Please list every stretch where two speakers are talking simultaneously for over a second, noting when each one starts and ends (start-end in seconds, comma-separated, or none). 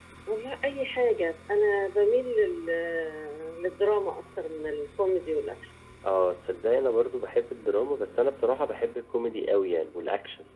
none